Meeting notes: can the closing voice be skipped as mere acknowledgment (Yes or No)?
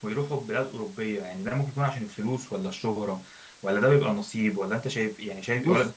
Yes